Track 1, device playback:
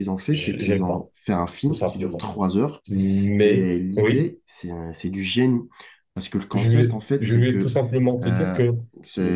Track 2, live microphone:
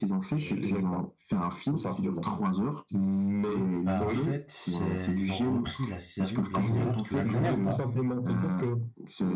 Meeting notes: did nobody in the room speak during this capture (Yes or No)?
No